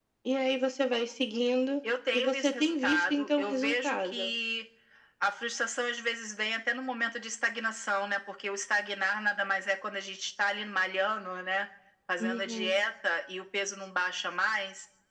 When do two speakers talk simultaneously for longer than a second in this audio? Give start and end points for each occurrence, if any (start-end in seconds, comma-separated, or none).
2.1-4.3